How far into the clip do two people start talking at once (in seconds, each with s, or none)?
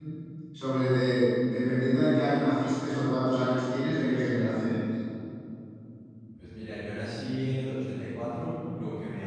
none